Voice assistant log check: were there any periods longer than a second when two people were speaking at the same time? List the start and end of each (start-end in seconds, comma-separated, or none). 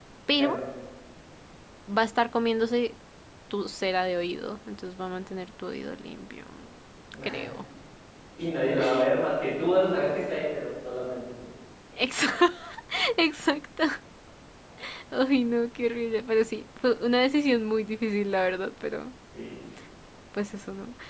none